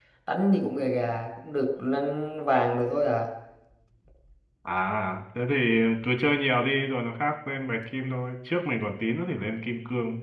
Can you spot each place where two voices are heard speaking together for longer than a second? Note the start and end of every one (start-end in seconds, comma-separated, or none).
none